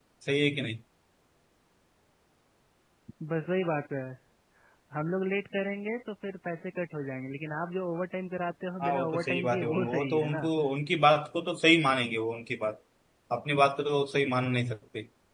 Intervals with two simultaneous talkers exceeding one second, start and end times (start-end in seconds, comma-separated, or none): 8.8-10.5